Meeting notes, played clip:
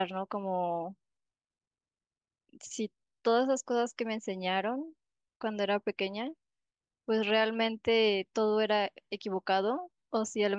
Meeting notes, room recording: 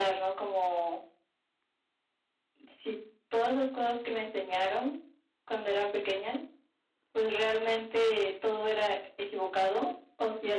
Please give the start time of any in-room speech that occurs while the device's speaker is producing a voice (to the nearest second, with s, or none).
none